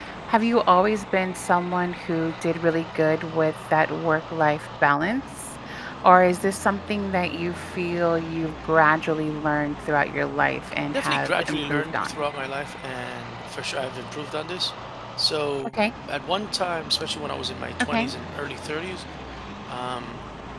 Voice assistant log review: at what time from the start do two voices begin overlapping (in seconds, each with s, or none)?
10.9 s